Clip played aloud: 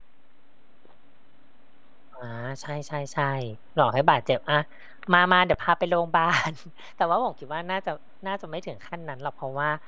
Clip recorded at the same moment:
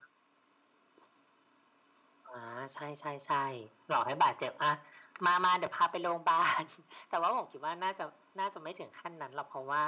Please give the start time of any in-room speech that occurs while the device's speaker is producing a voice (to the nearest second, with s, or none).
none